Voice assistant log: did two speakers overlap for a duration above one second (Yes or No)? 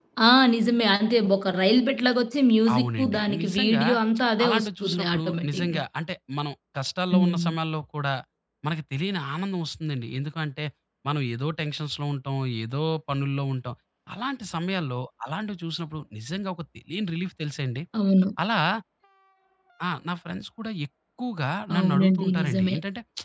Yes